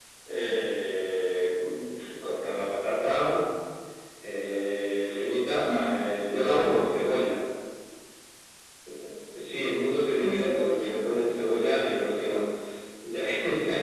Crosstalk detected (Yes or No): Yes